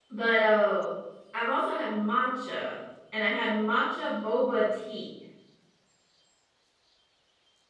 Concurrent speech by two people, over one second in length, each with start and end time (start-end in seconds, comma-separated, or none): none